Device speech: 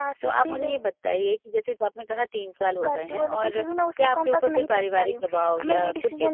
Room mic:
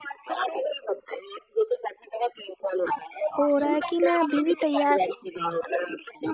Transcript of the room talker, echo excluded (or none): हो रहा है कि मैं अभी भी तैयार